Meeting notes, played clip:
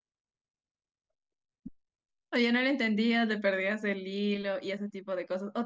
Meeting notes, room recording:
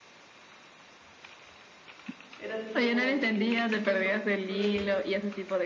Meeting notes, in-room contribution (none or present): present